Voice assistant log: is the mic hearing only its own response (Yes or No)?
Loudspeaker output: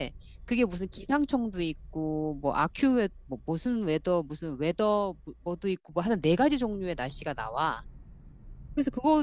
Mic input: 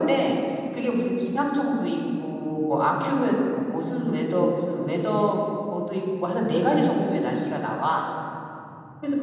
Yes